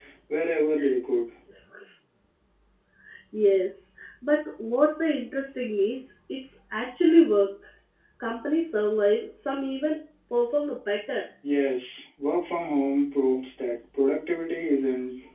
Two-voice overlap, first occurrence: none

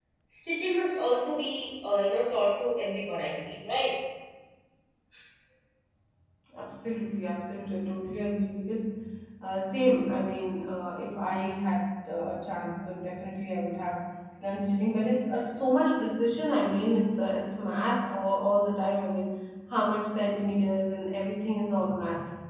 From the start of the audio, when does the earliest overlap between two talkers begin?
none

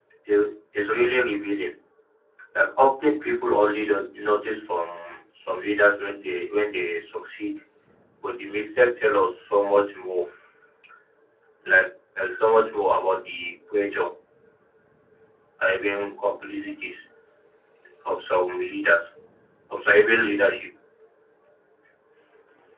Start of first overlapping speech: none

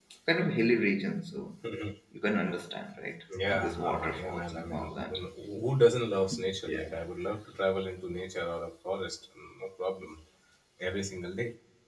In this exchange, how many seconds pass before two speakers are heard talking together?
3.5 s

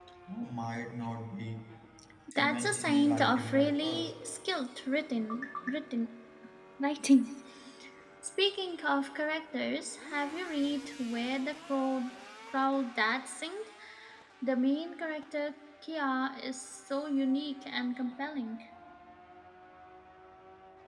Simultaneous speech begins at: 2.4 s

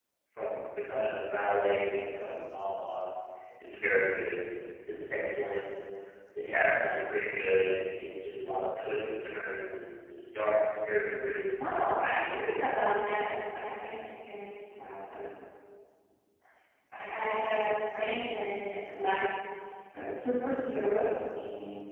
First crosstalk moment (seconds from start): none

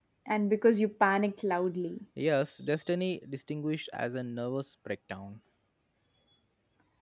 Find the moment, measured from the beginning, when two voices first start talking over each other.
none

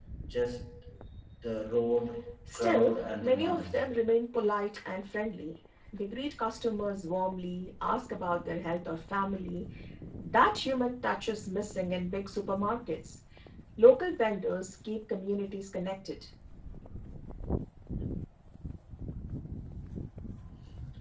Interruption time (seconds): 2.5 s

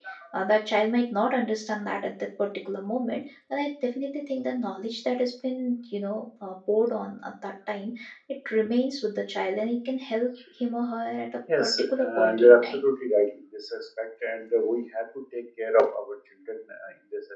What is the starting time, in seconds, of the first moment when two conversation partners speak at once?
11.5 s

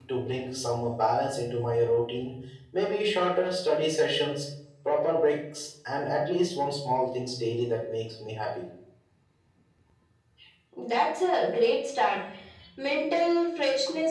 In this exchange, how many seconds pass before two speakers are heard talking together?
none

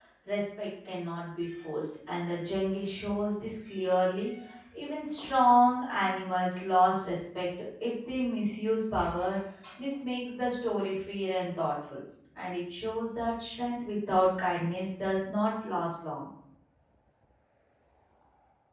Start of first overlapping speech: none

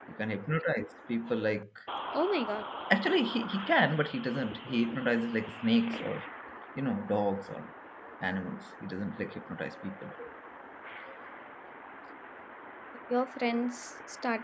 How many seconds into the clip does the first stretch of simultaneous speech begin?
none

